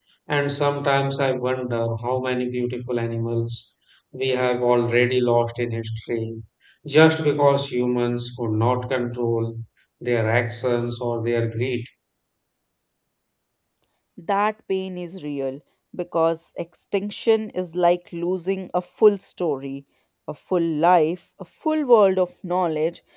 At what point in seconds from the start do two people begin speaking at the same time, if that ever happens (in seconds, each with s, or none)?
none